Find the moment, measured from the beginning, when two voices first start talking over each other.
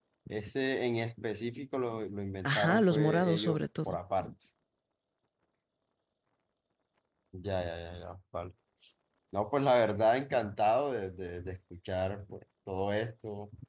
2.4 s

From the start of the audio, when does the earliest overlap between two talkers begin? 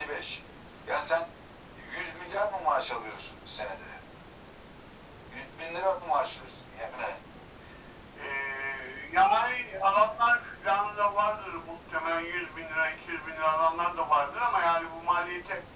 none

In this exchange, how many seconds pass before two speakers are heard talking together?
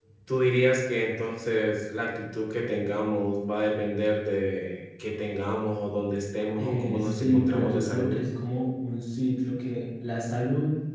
6.6 s

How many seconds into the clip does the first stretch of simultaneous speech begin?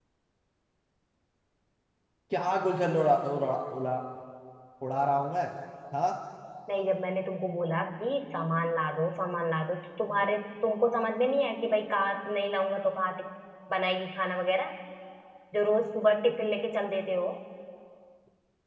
none

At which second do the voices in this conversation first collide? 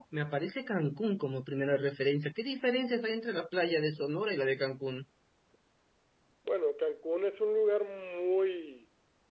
none

